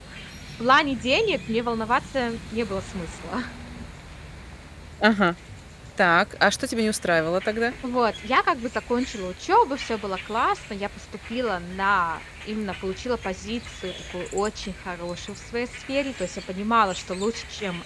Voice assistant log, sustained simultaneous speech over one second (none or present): none